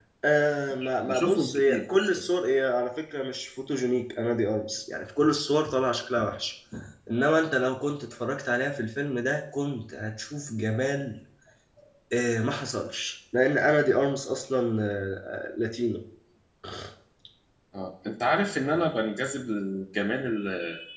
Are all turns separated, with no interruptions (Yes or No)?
No